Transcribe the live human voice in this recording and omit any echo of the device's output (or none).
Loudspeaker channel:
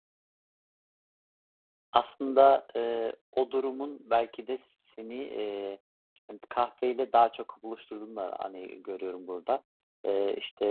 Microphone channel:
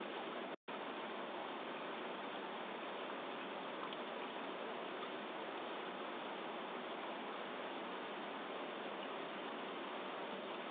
none